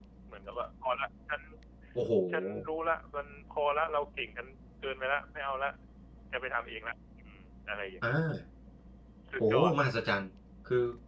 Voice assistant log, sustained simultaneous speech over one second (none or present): none